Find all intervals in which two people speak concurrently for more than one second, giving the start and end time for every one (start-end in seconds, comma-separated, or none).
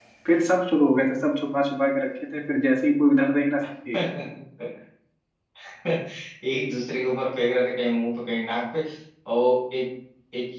none